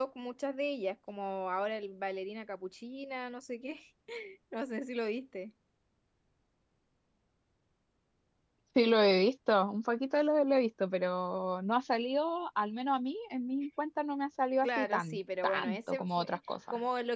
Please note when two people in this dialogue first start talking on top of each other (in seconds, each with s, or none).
14.6 s